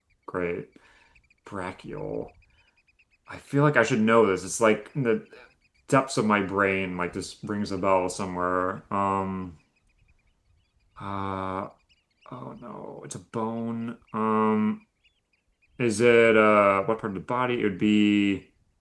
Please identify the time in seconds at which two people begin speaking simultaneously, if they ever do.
none

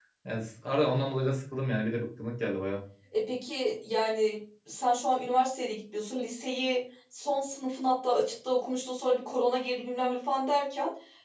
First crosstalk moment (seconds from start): none

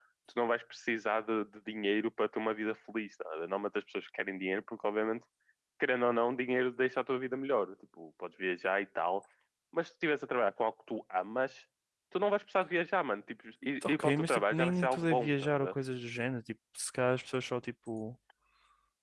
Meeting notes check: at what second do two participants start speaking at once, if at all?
13.8 s

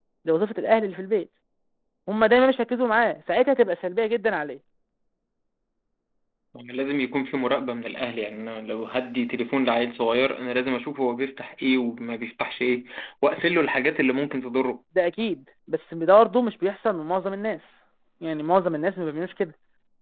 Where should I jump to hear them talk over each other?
none

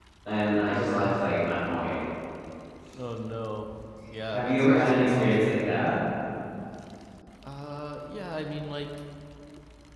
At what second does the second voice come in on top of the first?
4.3 s

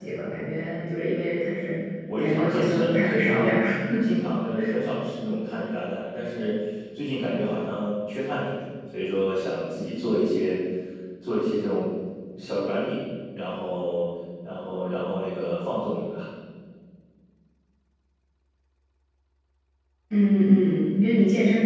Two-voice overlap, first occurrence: 2.2 s

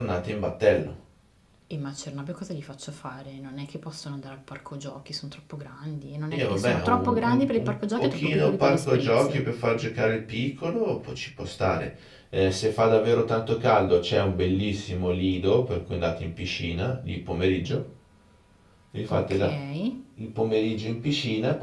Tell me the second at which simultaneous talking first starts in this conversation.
6.3 s

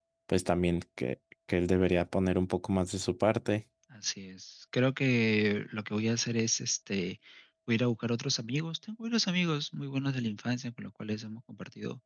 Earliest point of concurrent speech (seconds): none

